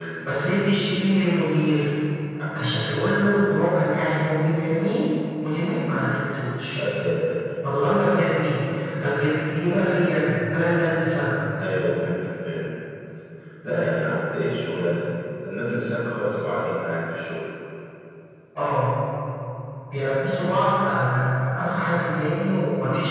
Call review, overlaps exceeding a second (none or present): none